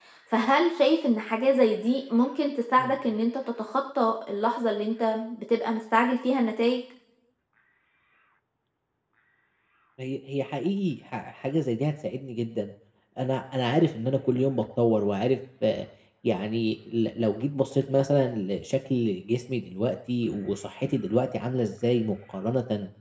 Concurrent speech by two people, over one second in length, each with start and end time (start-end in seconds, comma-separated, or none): none